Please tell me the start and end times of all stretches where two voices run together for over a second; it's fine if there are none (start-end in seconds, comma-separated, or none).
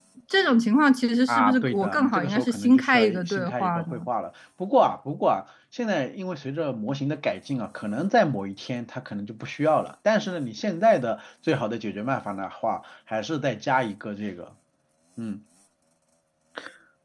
1.3-4.1